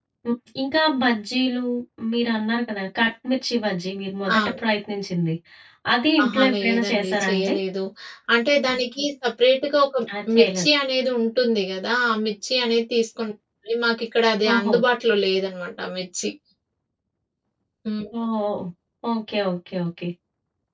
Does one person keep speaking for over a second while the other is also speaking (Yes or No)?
Yes